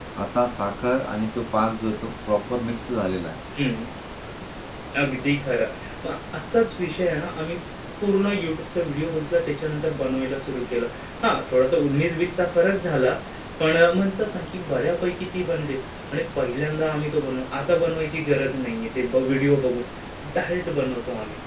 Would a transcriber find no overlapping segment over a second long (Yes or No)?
Yes